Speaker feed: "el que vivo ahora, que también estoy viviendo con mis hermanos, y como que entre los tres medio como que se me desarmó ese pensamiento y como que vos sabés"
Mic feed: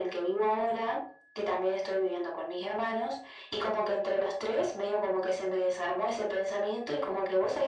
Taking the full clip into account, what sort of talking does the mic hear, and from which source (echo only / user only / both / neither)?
echo only